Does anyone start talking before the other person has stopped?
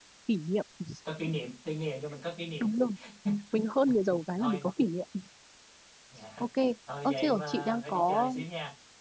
Yes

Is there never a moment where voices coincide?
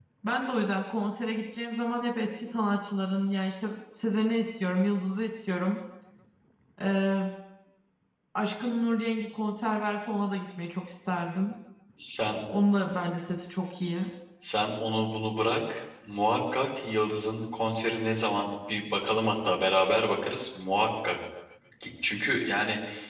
Yes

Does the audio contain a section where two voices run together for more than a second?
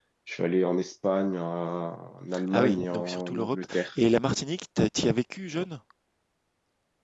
Yes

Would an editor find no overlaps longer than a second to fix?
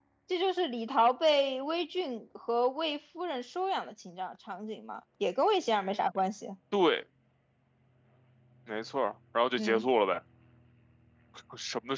Yes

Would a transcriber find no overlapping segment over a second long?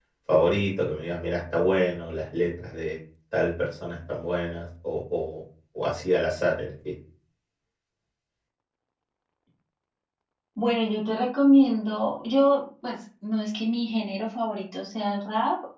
Yes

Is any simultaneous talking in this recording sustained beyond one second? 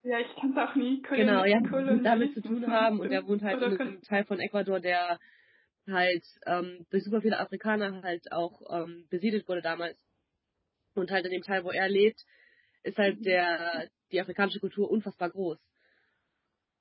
Yes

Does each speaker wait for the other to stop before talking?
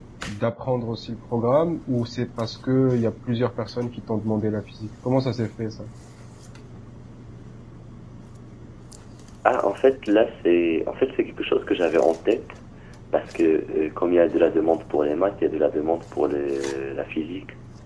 Yes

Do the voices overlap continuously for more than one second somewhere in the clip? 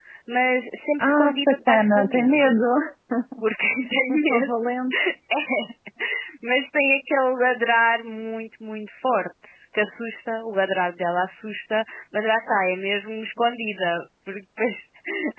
Yes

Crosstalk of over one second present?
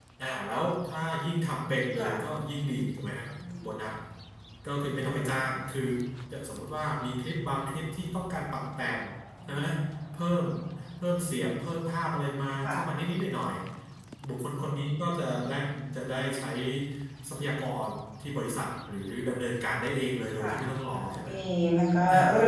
No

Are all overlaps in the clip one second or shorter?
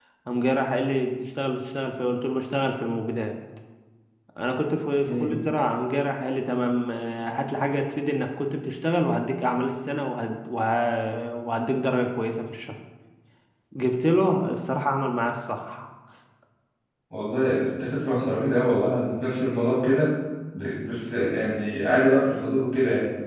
Yes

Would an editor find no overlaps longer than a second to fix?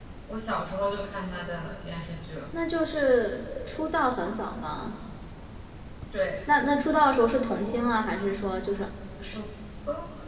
Yes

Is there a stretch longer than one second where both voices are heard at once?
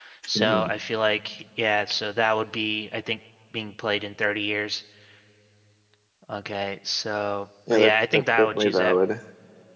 Yes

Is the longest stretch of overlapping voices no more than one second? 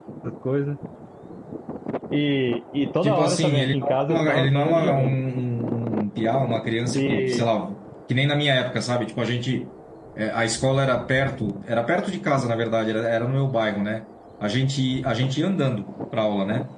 No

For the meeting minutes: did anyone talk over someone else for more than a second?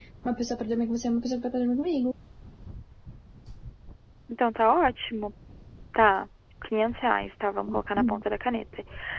No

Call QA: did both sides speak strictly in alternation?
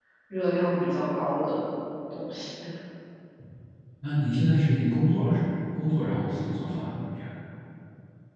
Yes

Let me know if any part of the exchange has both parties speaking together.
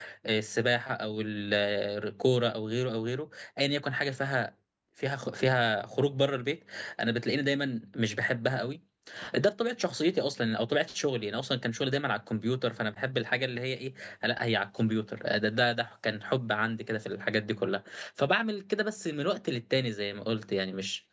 No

